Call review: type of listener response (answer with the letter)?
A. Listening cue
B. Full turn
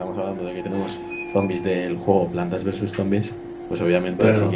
A